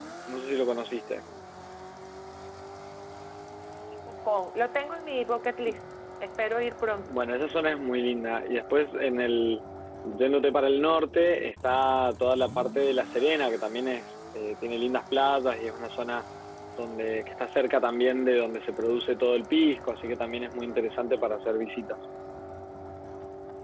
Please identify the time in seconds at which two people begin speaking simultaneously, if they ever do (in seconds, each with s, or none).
none